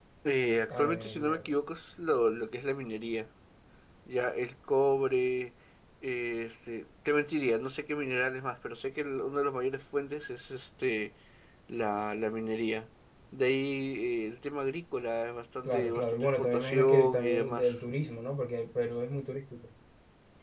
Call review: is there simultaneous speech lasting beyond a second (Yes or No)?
Yes